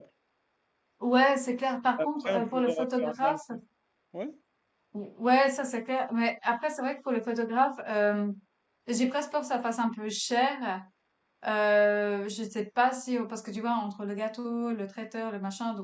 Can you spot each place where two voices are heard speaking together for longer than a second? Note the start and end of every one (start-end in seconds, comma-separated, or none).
2.0-3.4